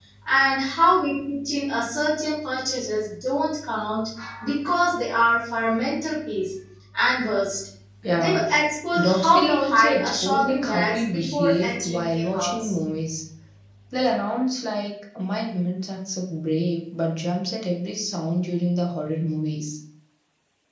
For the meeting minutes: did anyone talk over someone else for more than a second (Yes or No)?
Yes